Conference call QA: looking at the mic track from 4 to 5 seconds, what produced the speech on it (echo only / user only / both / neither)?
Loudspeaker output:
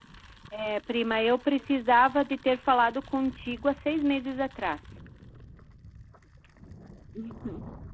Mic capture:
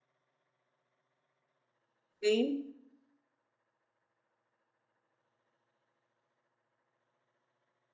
neither